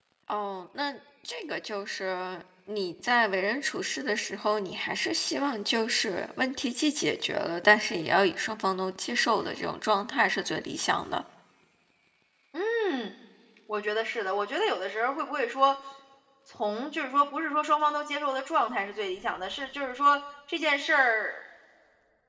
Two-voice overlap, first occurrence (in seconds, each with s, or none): none